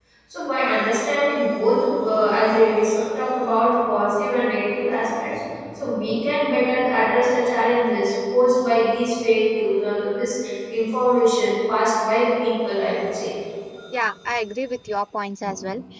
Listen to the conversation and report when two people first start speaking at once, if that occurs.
none

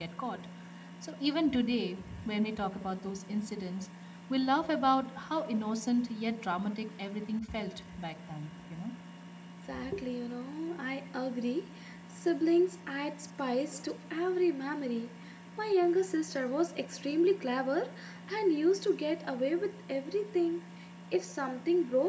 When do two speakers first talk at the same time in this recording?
none

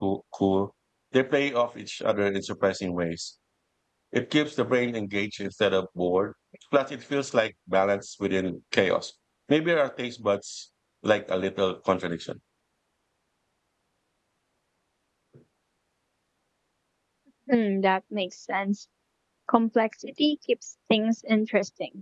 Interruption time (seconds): none

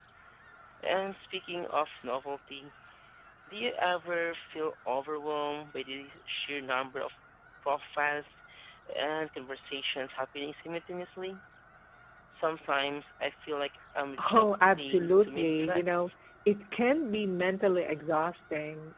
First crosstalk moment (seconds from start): 14.2 s

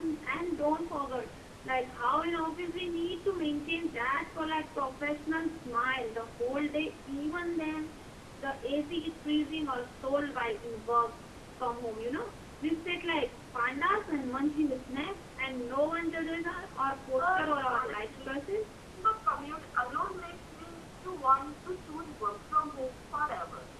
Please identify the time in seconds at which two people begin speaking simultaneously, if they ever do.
17.2 s

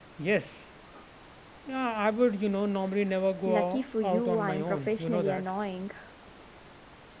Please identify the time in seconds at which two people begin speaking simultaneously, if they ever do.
3.5 s

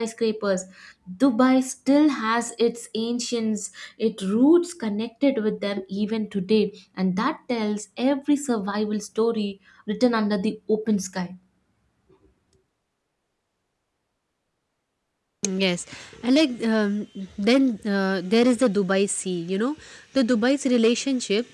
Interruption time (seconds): none

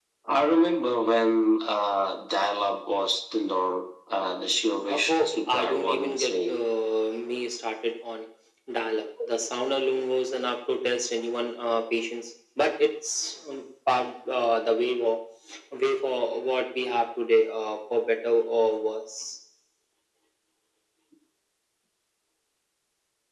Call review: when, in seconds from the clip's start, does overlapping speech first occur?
4.9 s

